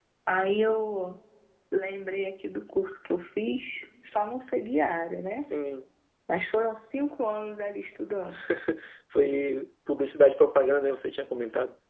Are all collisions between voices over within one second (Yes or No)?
Yes